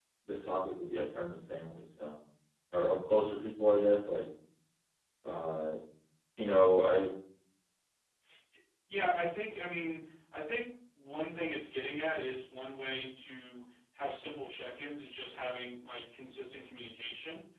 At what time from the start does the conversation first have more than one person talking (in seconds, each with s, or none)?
none